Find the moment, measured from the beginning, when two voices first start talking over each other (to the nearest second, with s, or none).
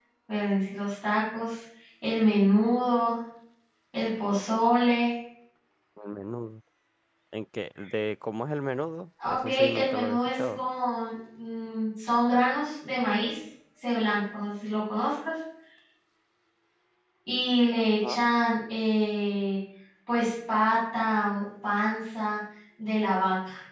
9 s